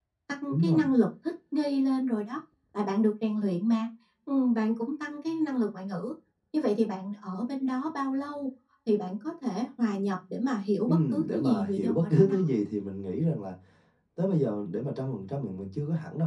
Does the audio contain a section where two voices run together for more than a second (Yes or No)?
Yes